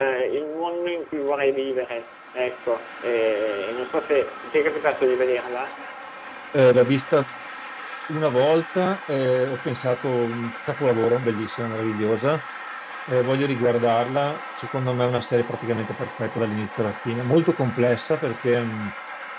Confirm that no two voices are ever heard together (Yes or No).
Yes